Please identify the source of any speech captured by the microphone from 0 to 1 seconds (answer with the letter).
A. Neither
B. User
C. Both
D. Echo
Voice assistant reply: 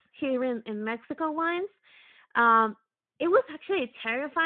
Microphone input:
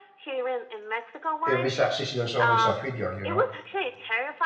D